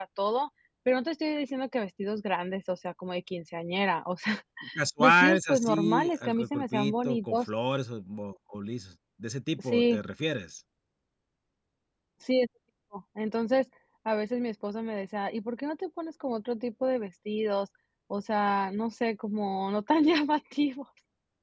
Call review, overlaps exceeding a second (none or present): present